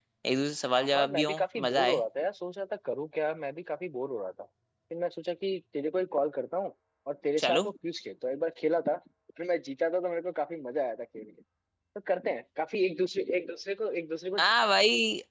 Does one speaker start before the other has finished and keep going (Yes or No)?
Yes